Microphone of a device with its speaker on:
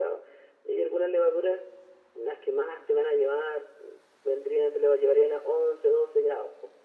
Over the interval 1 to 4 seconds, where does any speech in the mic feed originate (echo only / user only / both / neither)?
echo only